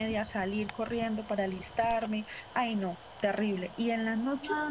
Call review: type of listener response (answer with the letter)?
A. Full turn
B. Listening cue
A